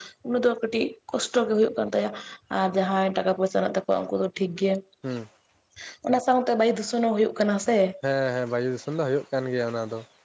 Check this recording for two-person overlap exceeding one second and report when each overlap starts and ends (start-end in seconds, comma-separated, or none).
none